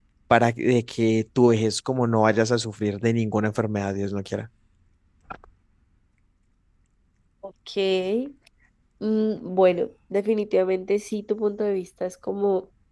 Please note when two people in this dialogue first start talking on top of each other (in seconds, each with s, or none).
none